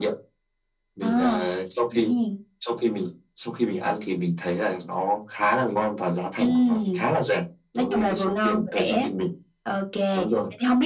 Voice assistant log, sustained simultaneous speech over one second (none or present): present